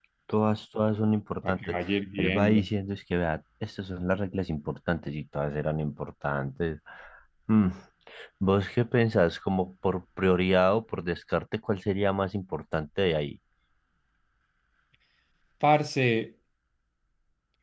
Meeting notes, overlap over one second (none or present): none